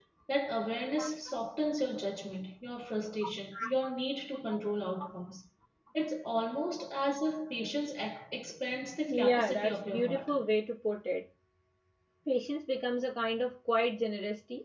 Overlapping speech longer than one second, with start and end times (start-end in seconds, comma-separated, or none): 9.1-10.3